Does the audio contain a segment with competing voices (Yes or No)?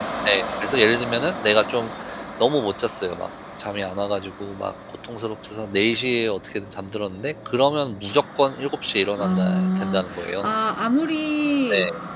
Yes